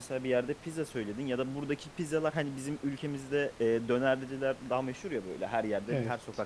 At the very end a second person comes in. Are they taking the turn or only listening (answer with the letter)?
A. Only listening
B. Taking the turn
A